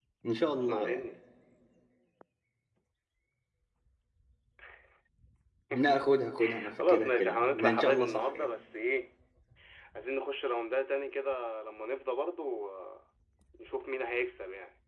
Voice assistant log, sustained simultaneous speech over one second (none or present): present